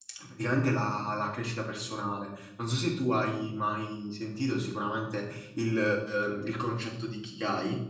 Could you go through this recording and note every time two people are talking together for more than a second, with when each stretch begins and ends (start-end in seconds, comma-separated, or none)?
none